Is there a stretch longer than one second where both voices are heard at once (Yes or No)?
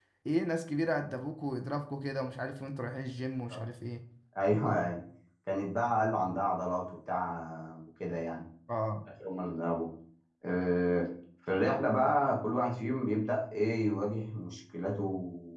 No